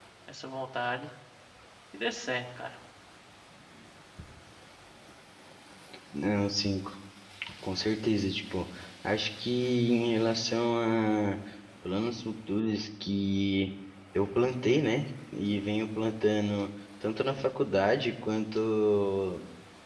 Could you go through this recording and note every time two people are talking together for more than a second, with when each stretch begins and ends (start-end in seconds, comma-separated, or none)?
none